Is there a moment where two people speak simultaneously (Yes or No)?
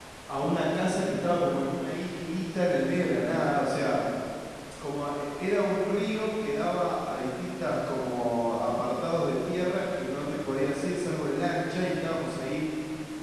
No